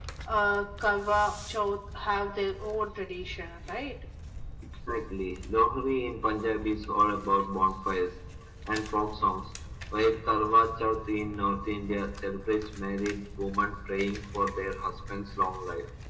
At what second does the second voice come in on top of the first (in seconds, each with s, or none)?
none